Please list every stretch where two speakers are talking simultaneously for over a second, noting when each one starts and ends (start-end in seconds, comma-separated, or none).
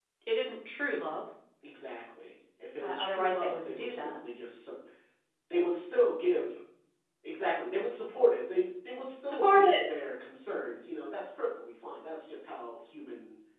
2.8-4.2